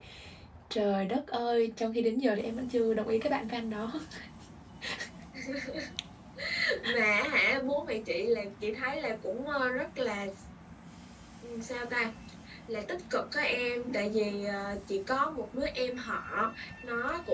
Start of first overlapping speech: none

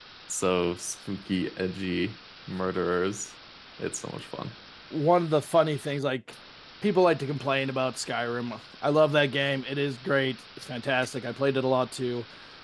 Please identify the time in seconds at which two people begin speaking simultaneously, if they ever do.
none

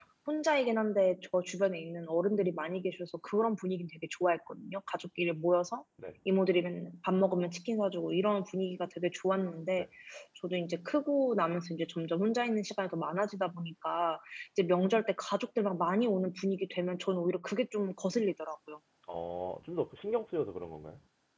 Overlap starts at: none

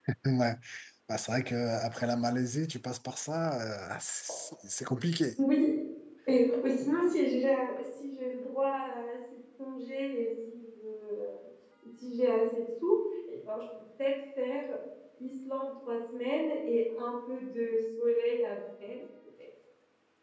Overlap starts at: none

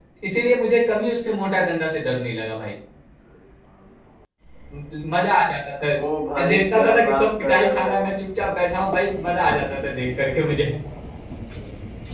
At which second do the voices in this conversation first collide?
6.4 s

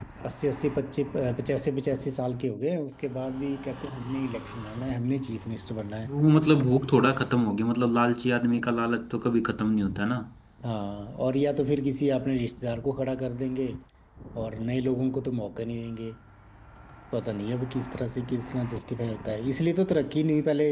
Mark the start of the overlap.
none

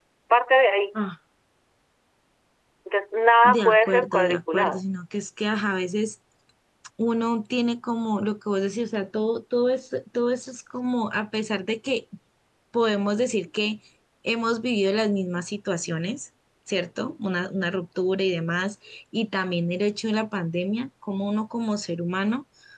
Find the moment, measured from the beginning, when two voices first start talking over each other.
3.4 s

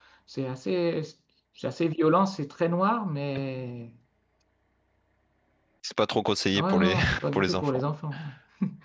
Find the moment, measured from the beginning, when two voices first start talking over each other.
6.5 s

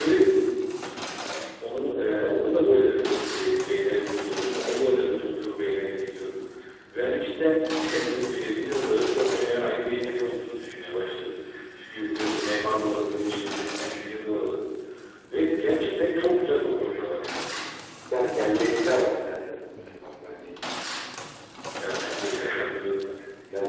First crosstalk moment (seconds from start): none

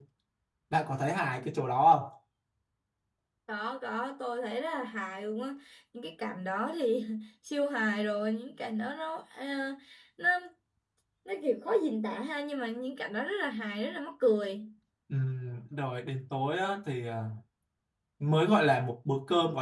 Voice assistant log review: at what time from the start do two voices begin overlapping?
none

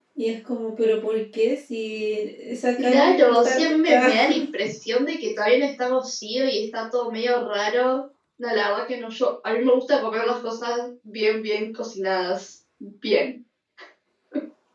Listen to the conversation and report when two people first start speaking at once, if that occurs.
2.8 s

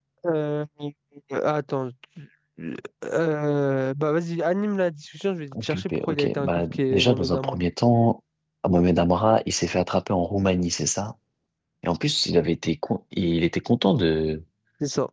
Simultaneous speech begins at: 5.5 s

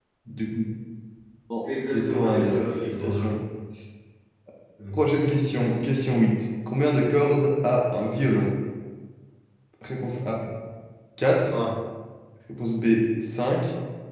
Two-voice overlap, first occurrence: 1.9 s

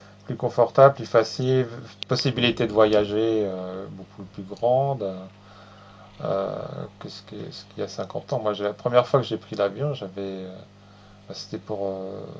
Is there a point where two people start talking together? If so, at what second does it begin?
none

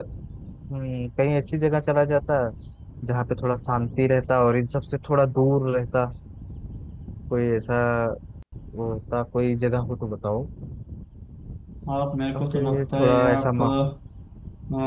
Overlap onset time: 12.3 s

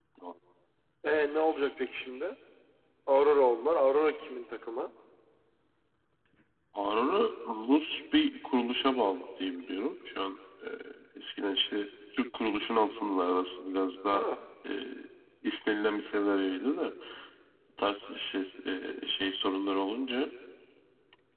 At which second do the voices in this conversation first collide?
none

